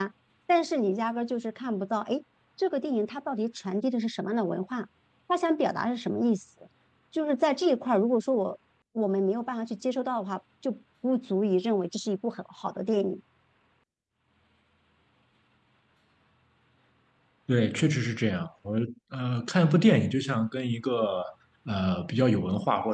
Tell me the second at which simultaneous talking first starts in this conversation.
none

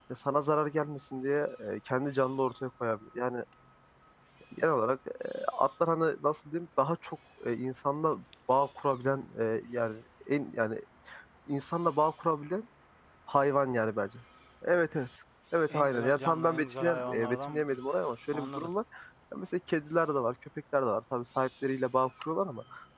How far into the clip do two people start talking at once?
15.7 s

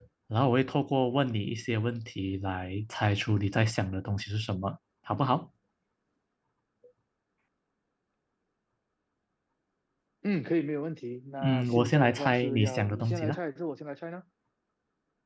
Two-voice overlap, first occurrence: 11.4 s

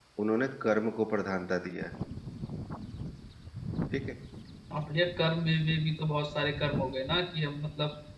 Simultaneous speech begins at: none

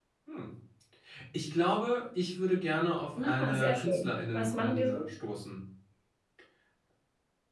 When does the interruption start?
3.2 s

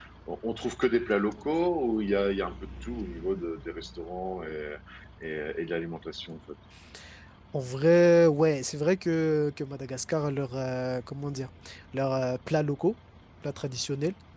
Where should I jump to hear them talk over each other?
none

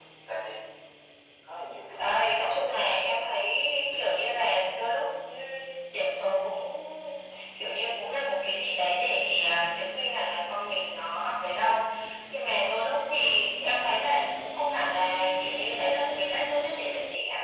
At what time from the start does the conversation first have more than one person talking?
2.0 s

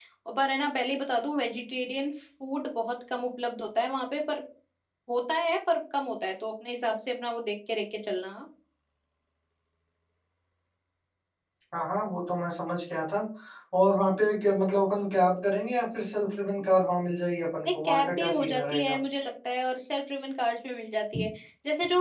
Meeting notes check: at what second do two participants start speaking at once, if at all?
17.6 s

